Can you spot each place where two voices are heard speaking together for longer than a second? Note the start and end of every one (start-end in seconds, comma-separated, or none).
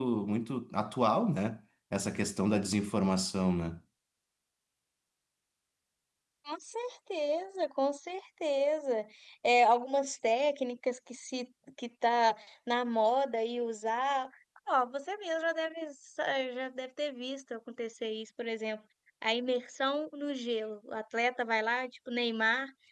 none